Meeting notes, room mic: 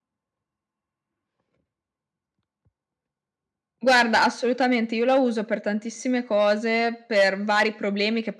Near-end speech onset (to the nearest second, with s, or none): none